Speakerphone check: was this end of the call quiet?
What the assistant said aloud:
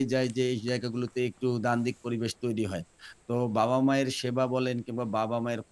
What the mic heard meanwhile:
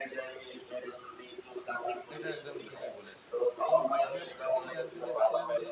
No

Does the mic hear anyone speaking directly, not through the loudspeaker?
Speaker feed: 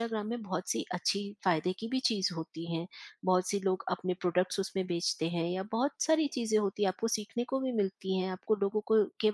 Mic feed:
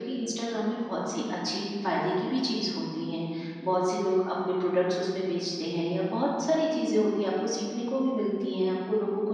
No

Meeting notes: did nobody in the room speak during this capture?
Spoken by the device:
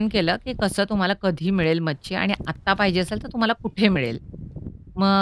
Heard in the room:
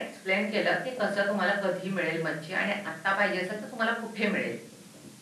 Yes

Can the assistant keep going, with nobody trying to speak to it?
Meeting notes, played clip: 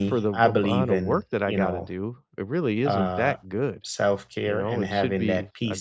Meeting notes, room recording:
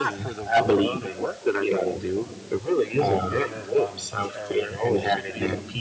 No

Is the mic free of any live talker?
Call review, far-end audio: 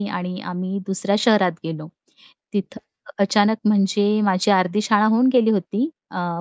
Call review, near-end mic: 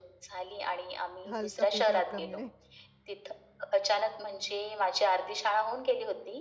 No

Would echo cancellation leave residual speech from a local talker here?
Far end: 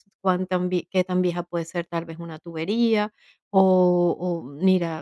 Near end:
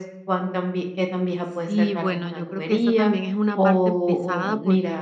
Yes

